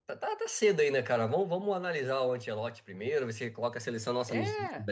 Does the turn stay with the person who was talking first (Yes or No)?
Yes